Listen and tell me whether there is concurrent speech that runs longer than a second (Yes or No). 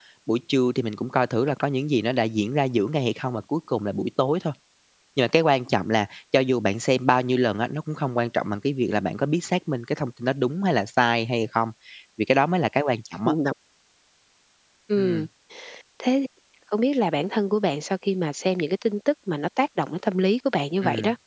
No